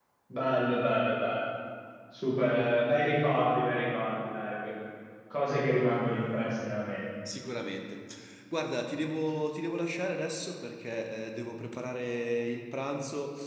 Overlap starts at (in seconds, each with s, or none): none